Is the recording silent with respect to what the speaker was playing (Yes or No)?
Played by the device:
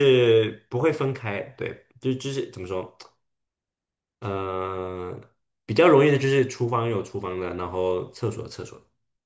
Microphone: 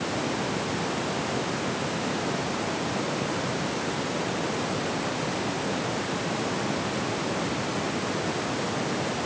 Yes